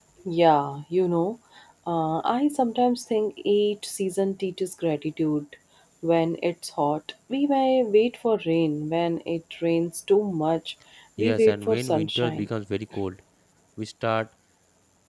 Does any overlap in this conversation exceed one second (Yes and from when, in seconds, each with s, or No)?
Yes, from 11.2 s